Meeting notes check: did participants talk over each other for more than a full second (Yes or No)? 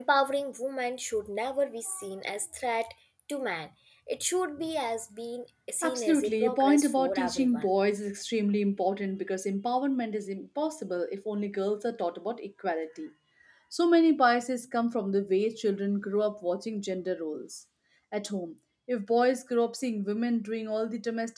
Yes